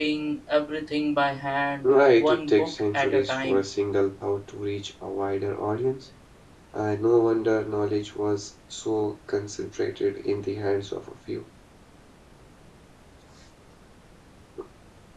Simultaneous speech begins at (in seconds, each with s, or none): 1.8 s